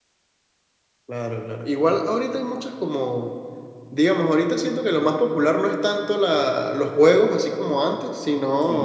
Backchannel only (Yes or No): Yes